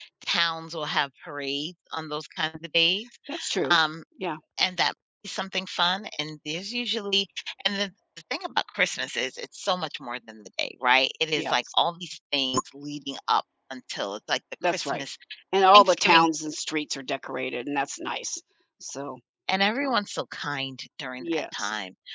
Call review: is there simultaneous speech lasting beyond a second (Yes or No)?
No